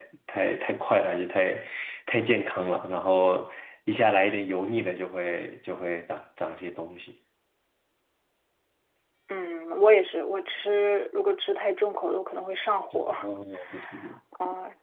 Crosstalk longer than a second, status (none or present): none